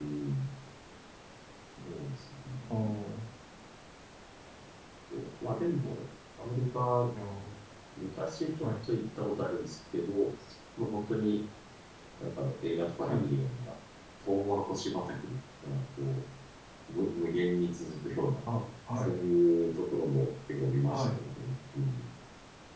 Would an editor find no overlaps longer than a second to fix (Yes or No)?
Yes